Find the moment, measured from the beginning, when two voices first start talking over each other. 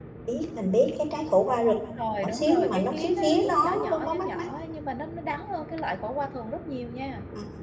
2.2 s

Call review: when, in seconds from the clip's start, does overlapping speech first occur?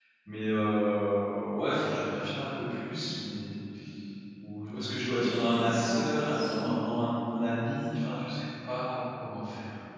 5.1 s

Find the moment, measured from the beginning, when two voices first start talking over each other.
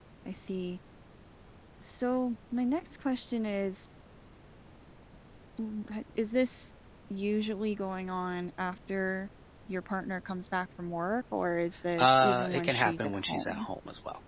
12.0 s

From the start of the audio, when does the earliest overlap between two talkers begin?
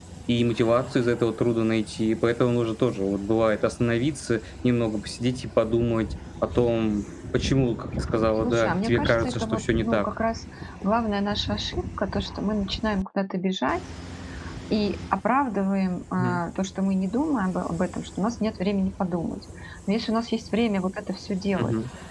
8.4 s

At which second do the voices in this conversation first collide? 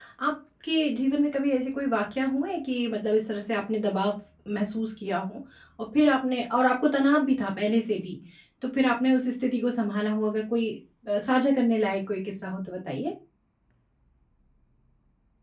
none

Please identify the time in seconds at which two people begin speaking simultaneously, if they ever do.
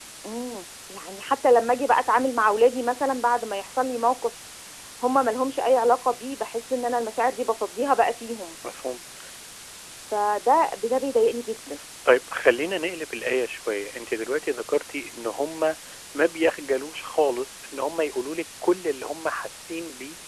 none

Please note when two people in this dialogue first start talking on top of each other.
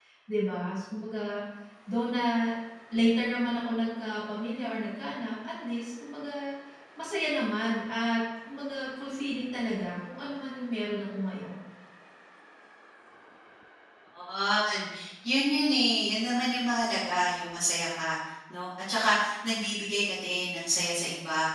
none

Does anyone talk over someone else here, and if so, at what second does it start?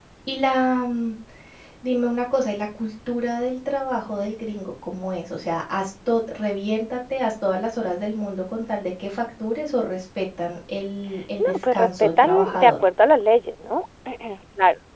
11.4 s

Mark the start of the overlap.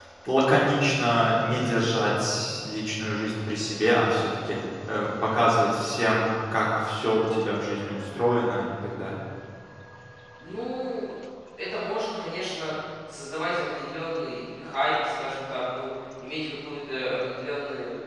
none

